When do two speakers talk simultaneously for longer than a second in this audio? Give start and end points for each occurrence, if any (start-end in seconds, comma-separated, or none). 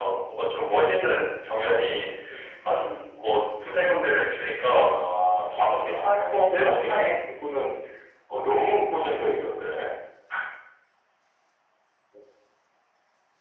5.5-7.2